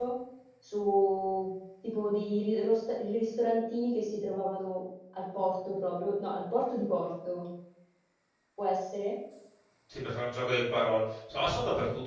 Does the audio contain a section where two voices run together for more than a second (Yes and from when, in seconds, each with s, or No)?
No